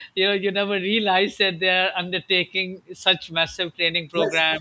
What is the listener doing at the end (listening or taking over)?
taking over